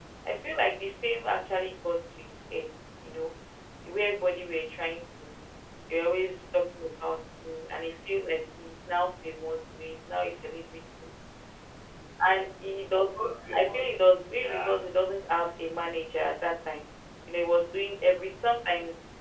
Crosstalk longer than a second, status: present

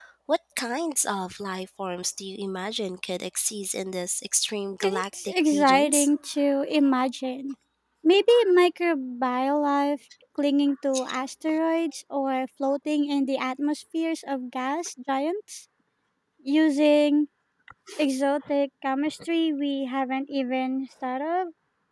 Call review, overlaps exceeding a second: present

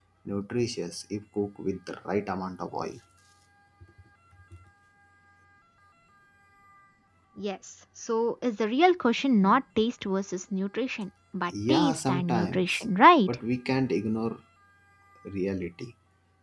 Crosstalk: present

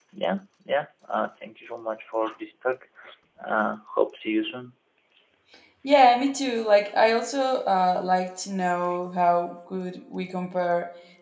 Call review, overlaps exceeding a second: none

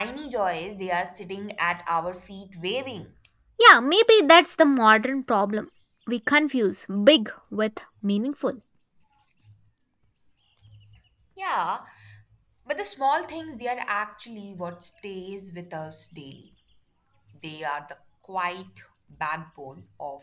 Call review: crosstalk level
none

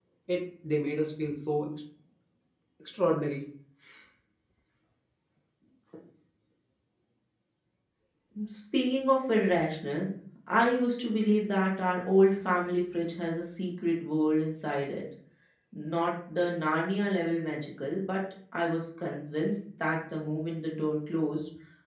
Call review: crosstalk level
none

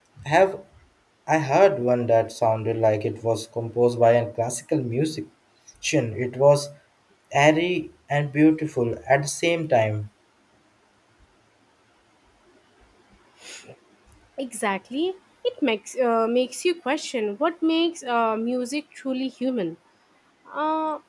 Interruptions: none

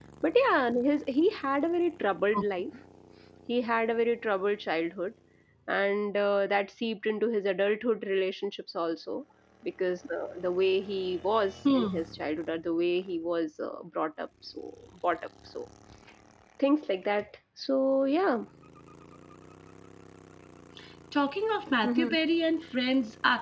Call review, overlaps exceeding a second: none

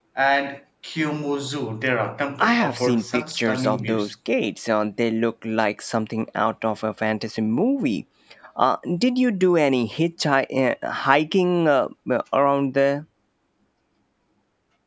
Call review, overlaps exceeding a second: present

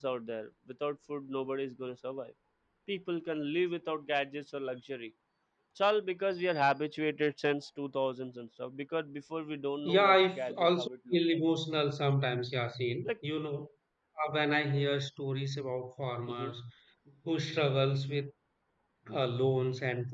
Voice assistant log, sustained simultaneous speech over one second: present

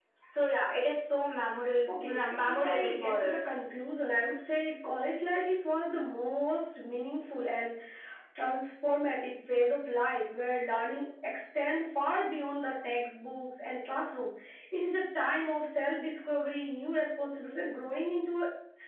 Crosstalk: present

